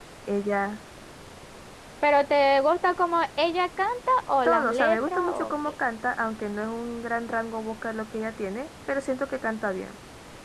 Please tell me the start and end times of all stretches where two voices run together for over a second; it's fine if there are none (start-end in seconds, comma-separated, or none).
4.4-5.7